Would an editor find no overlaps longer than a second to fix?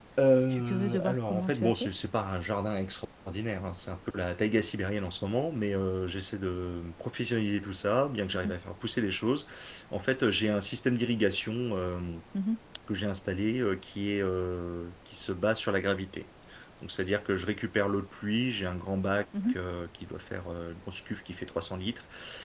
No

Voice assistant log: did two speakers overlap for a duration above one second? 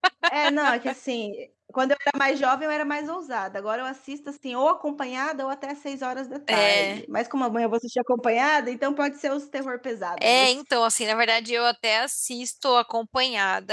No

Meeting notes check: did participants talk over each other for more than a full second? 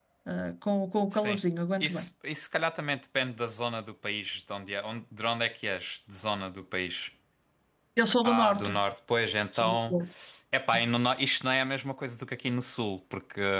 No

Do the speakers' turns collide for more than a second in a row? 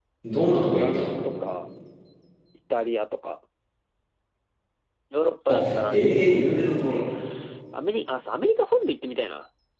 Yes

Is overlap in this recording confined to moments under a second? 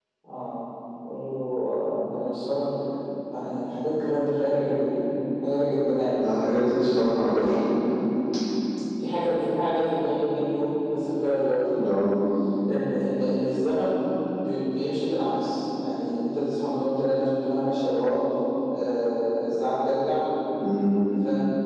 No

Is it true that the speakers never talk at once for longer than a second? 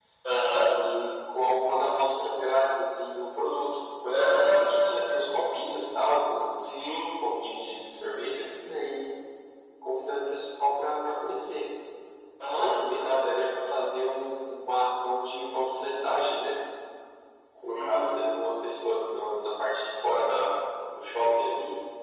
No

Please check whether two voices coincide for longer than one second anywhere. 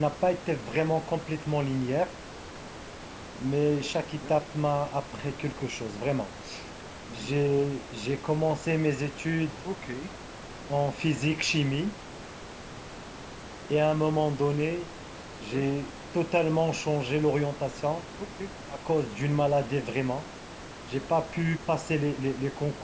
No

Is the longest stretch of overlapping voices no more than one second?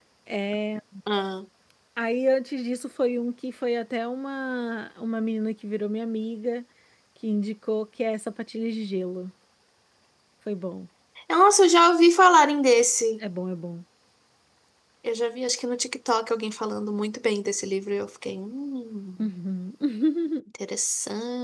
Yes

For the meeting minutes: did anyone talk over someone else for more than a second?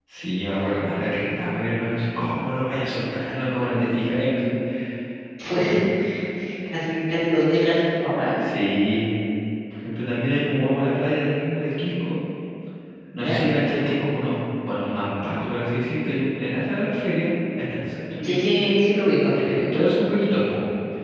No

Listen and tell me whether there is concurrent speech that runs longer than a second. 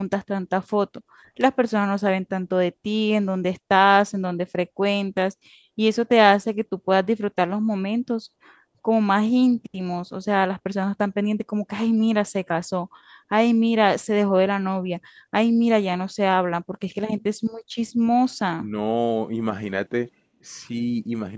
No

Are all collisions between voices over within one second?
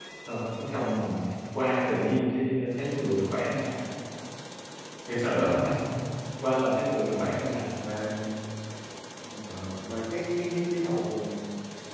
Yes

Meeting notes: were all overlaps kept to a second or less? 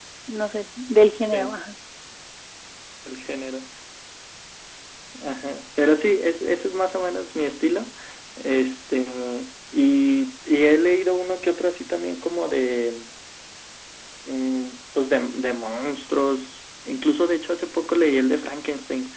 Yes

